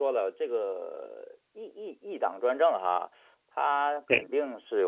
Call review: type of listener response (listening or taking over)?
listening